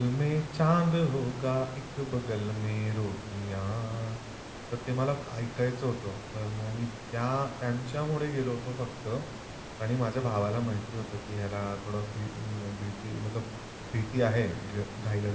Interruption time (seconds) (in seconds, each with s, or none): none